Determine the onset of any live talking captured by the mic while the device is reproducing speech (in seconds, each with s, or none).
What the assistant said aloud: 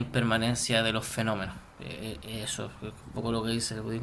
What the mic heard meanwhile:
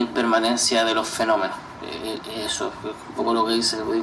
none